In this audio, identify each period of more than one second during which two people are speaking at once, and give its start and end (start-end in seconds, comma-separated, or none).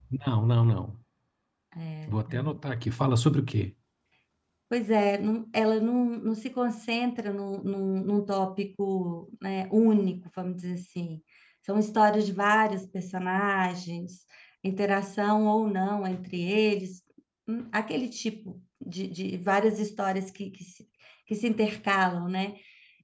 none